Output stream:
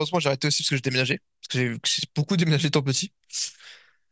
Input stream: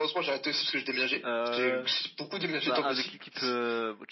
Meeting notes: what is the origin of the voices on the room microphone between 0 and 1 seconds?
echo only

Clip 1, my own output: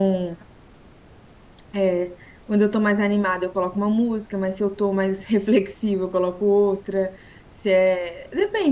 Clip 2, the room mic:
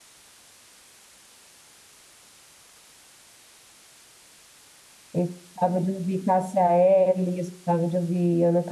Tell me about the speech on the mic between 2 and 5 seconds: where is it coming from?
neither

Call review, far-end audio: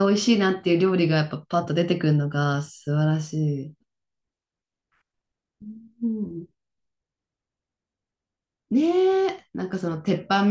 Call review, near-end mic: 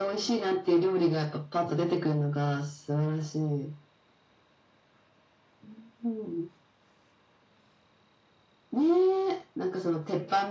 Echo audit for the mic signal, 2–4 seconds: echo only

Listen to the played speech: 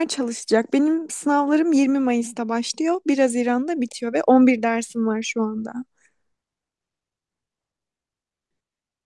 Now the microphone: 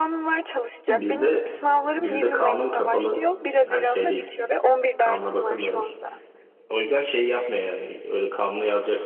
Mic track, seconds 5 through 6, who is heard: both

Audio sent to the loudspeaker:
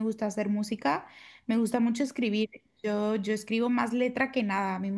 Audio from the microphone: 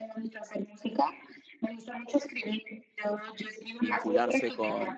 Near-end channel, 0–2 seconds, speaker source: echo only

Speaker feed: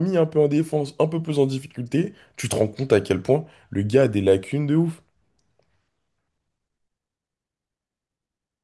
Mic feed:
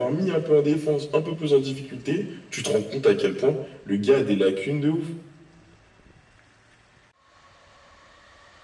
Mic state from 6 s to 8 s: neither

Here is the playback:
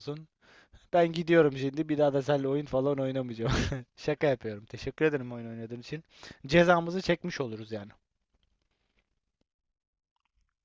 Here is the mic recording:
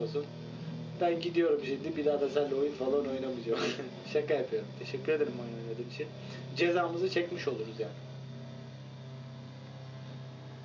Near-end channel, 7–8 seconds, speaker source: echo only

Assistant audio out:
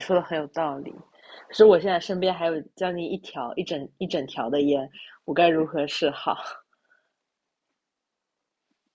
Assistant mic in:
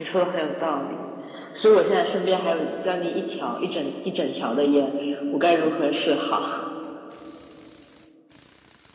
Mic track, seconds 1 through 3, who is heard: echo only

